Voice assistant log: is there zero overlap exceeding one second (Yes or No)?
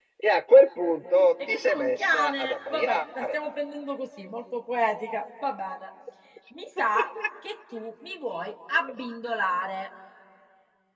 No